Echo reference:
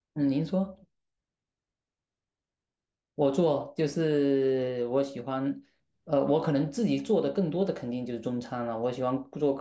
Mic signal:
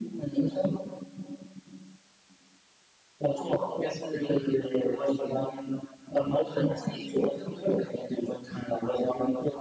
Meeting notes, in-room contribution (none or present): none